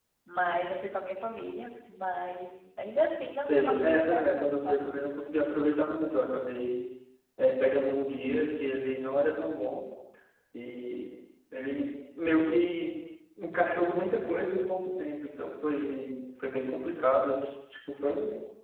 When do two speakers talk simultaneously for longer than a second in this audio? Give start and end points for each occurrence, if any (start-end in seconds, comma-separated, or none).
3.5-4.9